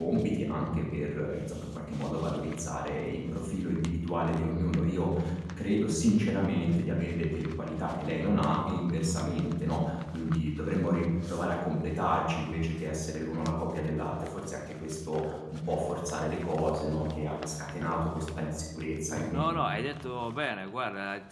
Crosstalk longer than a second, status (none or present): none